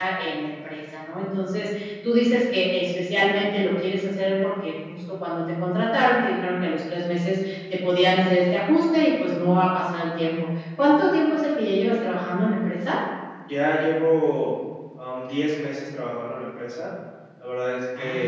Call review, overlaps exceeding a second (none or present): none